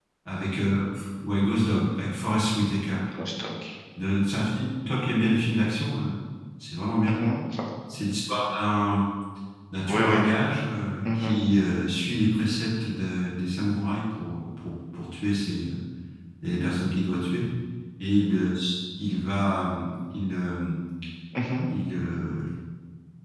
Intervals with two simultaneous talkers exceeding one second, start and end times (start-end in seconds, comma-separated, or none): none